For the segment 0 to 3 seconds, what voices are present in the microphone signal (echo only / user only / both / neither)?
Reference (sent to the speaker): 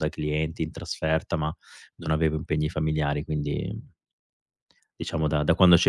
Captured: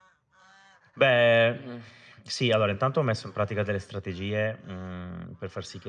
user only